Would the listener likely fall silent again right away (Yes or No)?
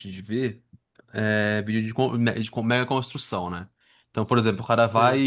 Yes